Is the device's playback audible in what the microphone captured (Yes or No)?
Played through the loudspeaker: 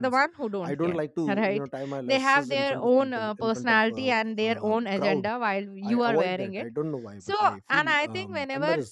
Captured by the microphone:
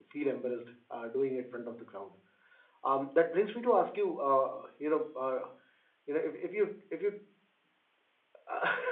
No